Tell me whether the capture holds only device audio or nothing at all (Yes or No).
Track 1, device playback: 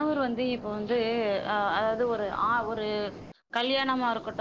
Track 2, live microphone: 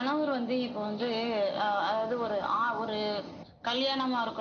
Yes